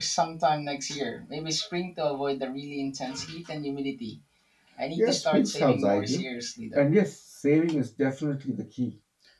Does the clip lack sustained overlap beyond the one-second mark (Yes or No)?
No